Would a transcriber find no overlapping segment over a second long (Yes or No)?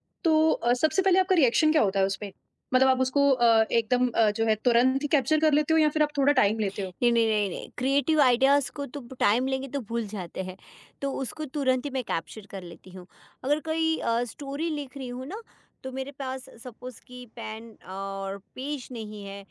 Yes